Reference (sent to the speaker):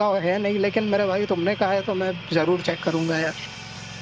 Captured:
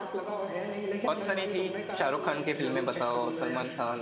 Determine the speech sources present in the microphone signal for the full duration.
both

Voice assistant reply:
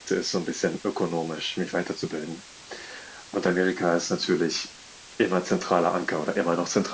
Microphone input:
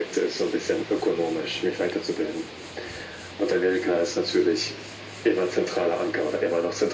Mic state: echo only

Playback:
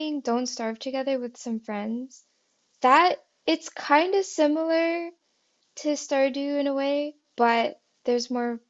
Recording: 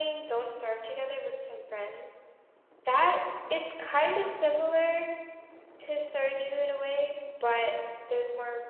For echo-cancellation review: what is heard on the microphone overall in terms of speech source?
echo only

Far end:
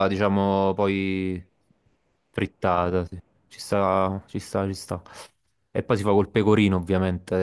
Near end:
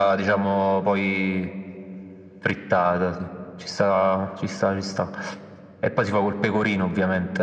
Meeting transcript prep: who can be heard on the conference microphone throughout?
echo only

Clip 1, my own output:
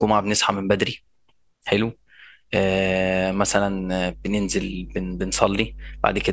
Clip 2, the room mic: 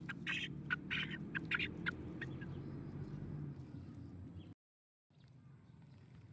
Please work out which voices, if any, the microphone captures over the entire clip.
neither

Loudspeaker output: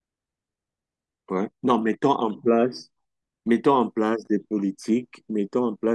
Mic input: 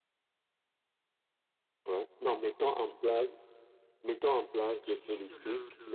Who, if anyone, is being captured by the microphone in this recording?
both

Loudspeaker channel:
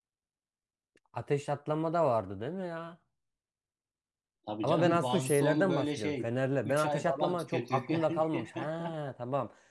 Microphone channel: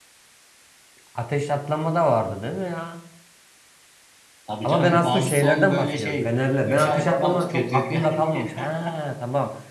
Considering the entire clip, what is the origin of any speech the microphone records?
echo only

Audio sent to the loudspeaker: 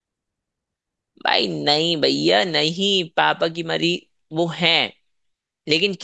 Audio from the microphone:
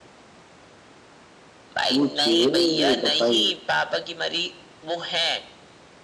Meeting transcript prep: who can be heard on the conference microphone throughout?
both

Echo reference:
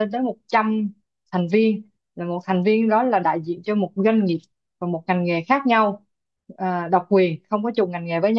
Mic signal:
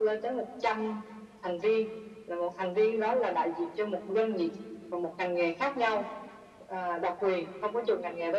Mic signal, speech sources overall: echo only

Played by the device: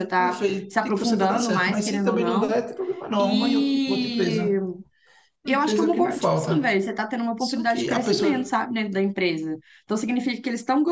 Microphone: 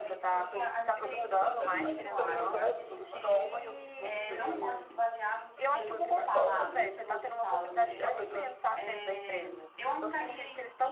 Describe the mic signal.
both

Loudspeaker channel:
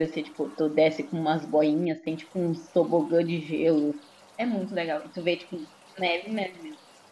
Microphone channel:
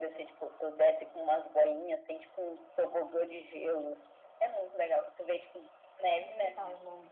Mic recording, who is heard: both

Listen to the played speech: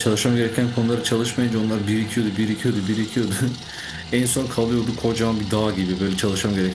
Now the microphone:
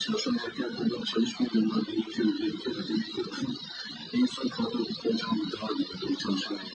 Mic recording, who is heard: echo only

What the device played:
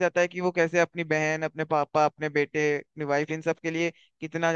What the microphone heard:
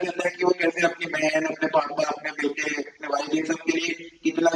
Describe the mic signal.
echo only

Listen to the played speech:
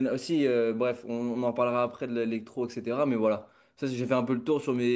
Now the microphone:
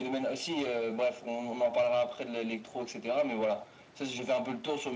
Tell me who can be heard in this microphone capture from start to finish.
echo only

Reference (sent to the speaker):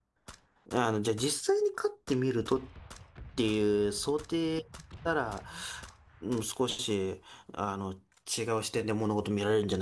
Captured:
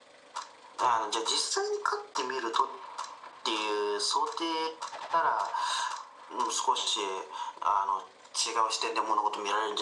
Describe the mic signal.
echo only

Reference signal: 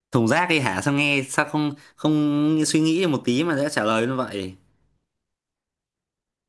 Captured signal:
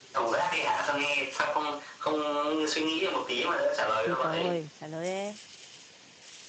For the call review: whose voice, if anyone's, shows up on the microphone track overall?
both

